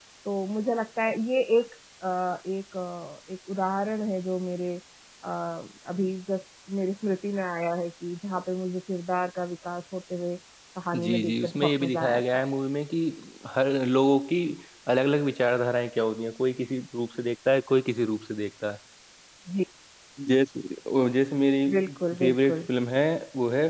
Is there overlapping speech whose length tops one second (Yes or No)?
Yes